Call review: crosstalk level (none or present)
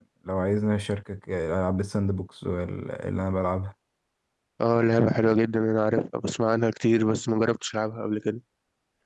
none